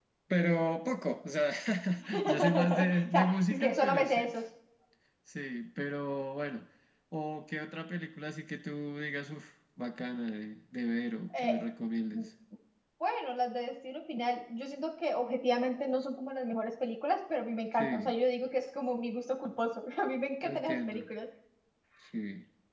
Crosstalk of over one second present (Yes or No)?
Yes